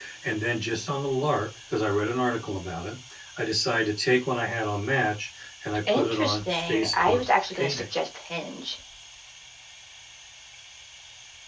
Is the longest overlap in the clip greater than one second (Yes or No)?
Yes